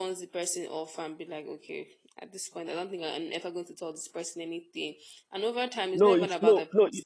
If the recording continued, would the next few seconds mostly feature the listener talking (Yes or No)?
Yes